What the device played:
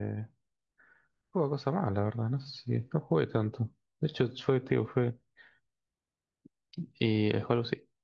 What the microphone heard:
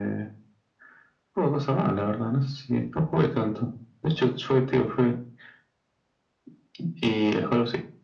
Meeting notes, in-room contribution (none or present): none